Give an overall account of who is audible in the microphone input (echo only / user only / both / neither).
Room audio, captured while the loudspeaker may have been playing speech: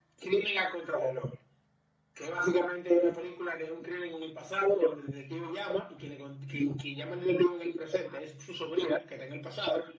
echo only